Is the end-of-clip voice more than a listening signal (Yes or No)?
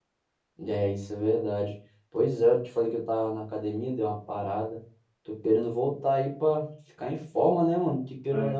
No